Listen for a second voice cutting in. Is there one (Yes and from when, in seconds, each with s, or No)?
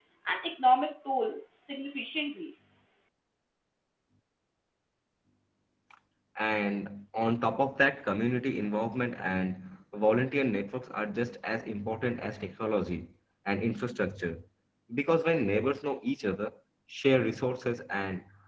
No